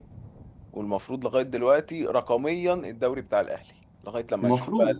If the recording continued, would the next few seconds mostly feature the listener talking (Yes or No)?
Yes